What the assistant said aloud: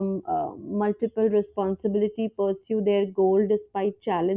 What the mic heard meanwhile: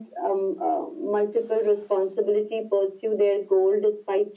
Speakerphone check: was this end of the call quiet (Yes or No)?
Yes